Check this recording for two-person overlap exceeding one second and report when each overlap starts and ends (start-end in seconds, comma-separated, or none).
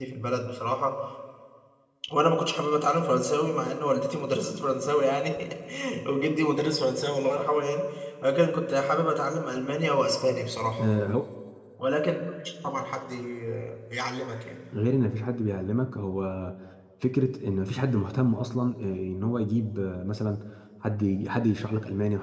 none